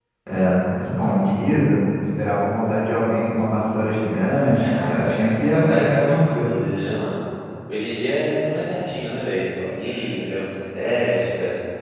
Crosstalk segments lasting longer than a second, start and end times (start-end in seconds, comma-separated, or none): 4.6-6.5